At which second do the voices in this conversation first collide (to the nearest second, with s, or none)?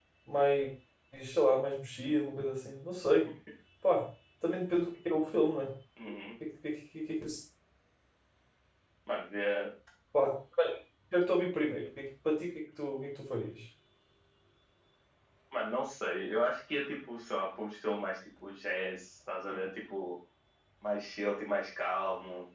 none